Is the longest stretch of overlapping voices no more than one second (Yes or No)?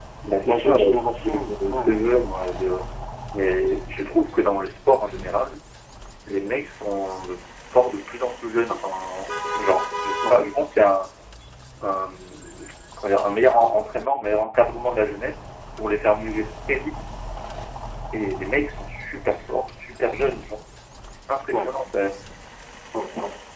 No